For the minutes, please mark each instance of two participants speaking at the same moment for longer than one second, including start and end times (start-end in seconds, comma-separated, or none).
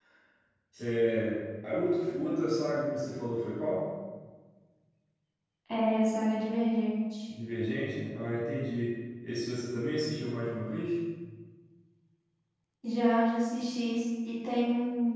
none